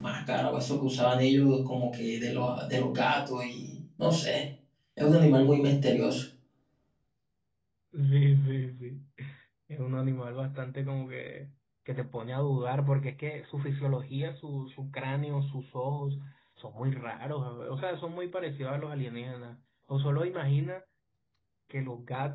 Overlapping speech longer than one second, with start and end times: none

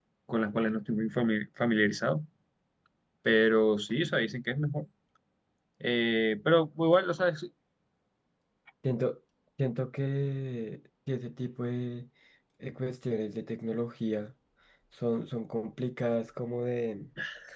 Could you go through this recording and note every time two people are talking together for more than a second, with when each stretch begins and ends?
none

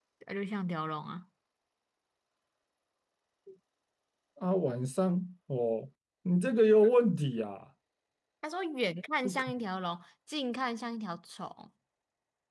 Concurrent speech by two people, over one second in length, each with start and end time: none

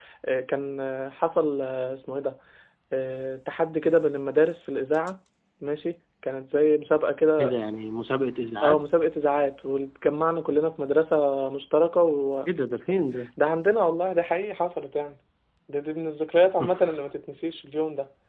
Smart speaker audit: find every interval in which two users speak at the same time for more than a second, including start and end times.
none

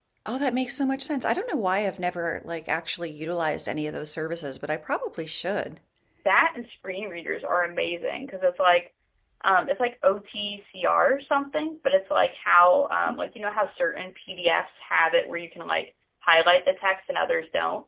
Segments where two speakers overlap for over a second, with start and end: none

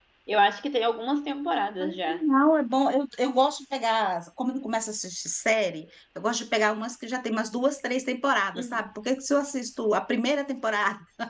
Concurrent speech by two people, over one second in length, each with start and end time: none

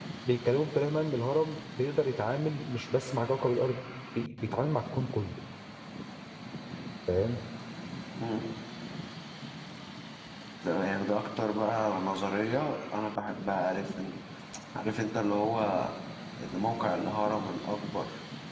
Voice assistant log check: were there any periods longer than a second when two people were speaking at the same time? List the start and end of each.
none

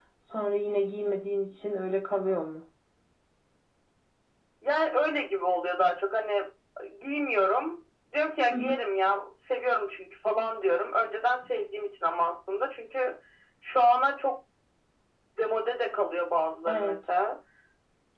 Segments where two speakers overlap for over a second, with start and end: none

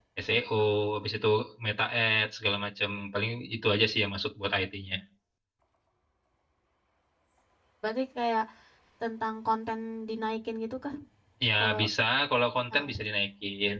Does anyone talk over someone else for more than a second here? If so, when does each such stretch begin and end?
none

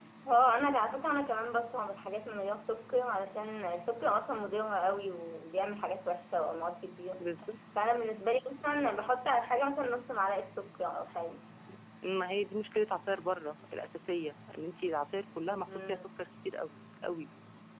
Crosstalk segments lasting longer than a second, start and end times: none

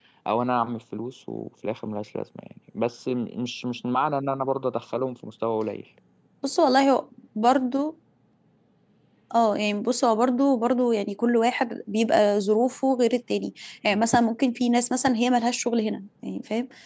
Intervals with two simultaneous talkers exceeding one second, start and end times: none

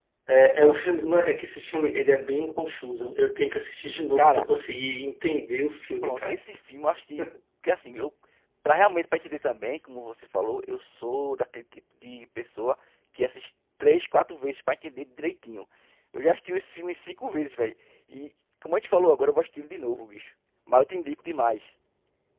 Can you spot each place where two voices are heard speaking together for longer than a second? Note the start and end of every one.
none

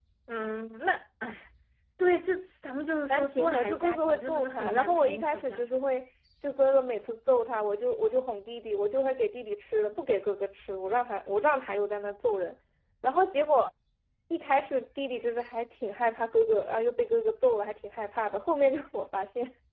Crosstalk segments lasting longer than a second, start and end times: 3.1-5.7

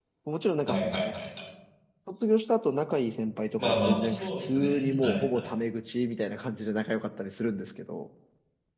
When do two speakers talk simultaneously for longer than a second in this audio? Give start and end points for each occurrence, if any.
3.6-5.5

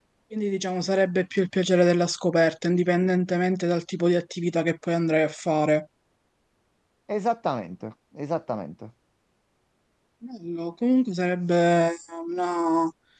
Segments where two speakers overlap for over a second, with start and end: none

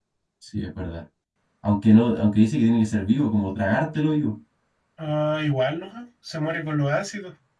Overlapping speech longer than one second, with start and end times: none

